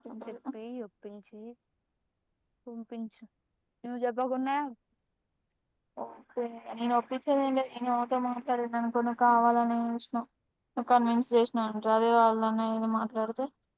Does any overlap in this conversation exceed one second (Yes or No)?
No